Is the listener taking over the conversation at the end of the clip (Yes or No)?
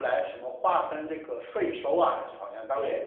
Yes